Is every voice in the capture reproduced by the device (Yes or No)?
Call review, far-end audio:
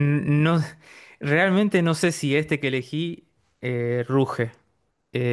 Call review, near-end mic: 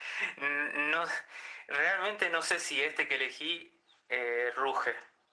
Yes